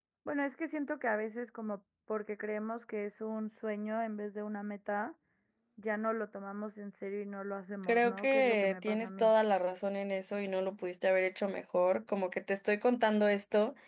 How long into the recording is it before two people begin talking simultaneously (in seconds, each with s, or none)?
7.8 s